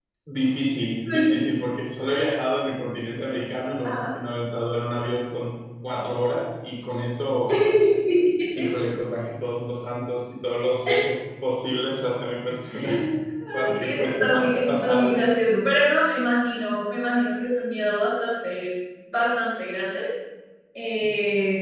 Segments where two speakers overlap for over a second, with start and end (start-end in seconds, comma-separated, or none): 13.5-15.2